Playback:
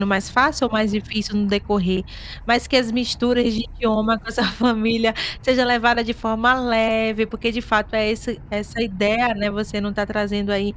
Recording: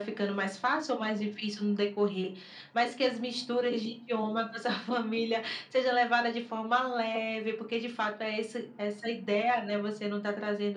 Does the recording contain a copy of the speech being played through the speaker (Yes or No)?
Yes